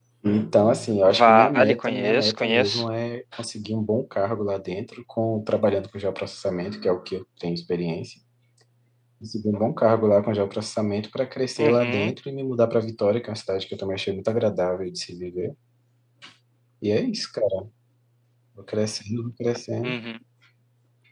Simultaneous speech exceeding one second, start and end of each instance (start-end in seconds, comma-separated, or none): 1.1-2.8